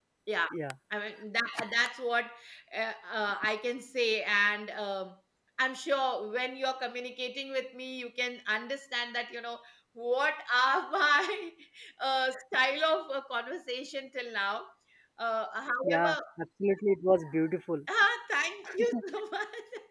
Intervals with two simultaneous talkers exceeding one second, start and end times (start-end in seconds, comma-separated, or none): none